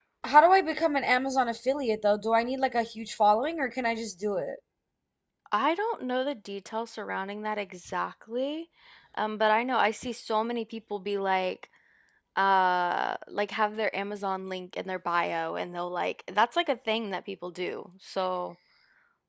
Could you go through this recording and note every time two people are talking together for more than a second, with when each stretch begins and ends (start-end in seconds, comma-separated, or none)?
none